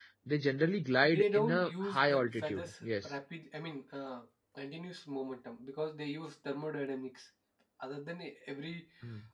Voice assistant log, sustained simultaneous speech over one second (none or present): present